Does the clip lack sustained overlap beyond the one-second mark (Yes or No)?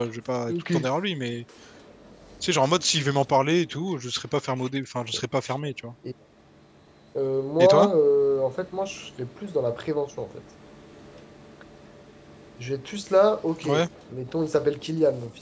Yes